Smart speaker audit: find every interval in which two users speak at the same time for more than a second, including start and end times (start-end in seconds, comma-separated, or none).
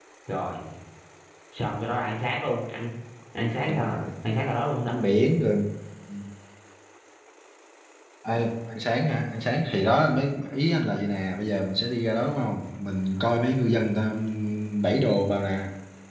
none